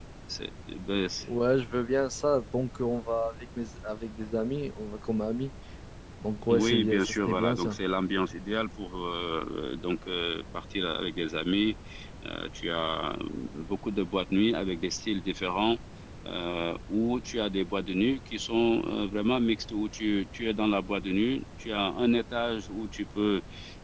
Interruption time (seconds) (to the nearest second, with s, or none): 6 s